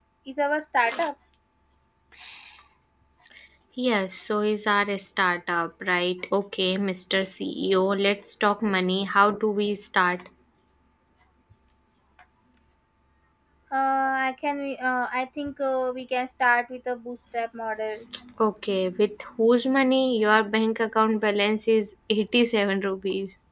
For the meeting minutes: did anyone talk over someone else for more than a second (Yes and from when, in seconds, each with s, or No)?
No